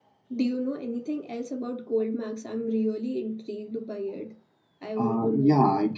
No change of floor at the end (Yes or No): No